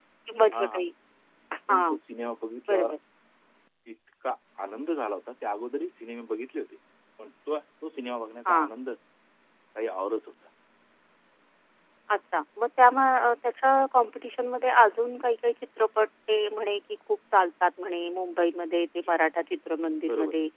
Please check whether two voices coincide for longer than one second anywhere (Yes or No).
No